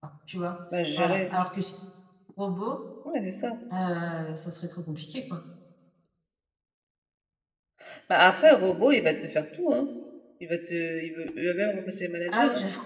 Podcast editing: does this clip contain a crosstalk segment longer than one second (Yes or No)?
No